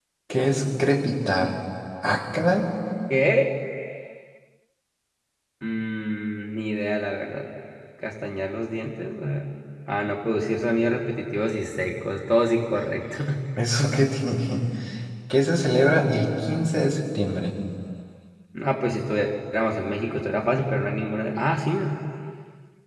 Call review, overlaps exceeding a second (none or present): none